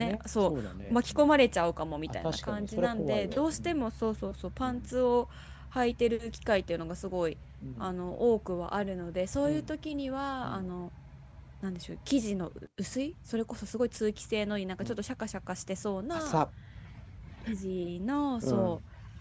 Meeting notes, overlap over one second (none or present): present